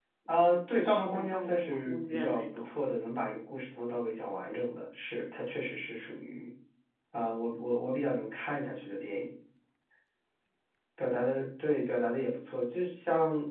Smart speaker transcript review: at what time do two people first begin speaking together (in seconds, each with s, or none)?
0.7 s